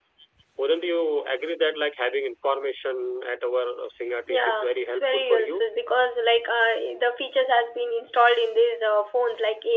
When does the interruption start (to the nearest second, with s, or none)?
4 s